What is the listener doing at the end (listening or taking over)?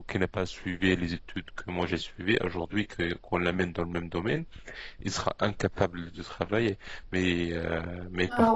taking over